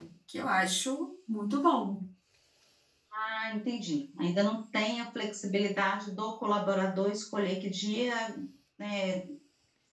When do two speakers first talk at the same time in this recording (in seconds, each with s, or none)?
none